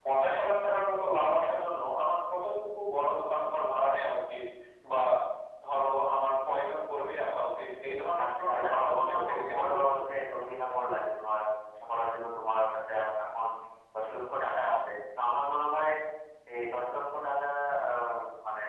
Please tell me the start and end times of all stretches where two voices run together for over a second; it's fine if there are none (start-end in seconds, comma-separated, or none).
8.2-9.9